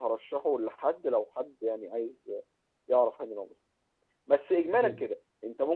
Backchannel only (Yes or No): Yes